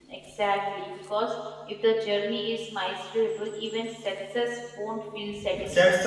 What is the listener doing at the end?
taking over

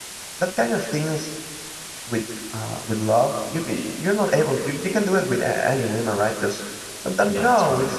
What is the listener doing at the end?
listening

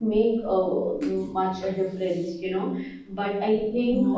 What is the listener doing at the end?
listening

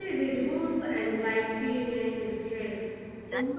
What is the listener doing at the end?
listening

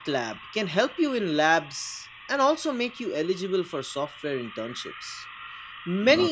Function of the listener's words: listening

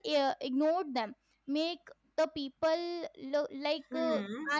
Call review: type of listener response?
listening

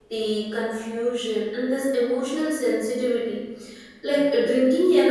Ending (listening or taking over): listening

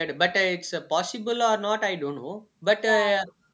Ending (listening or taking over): listening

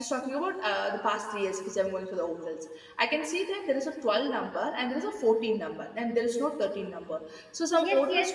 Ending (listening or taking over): taking over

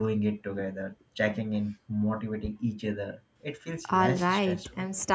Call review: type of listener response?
taking over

